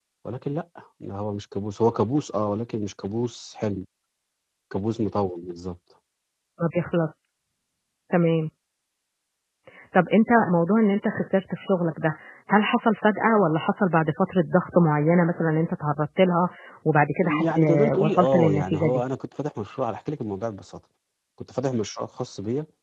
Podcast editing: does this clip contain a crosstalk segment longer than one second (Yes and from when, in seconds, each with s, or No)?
Yes, from 17.2 s